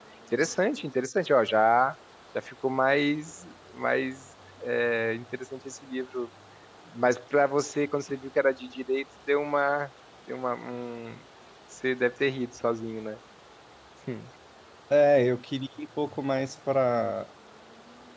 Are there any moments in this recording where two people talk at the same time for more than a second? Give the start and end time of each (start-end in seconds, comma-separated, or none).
none